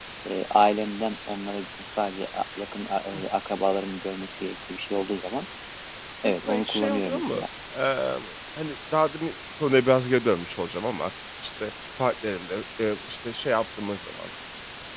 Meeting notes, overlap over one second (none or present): present